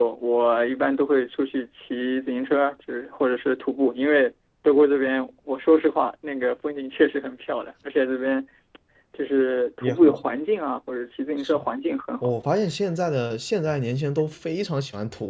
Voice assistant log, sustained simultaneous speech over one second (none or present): none